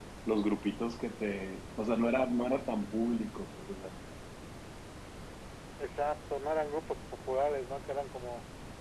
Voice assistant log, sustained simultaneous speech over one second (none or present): none